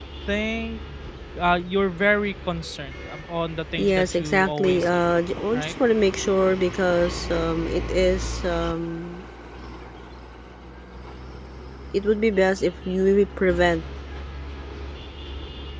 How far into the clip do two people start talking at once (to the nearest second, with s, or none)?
4 s